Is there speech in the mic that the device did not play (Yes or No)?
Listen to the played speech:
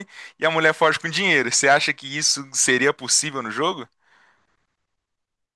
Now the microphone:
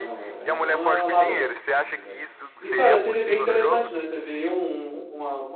Yes